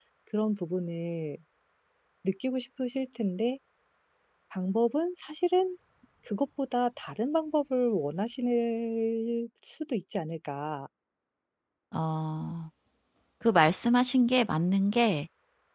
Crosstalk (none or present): none